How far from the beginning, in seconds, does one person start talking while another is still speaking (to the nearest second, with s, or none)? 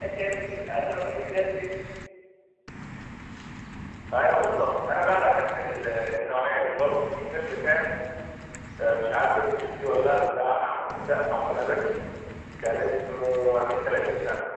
none